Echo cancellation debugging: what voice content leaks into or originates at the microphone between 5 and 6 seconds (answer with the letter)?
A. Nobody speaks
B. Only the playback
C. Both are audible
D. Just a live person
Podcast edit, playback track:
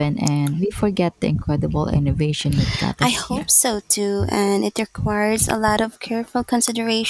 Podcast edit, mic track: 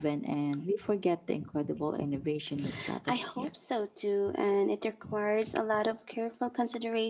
B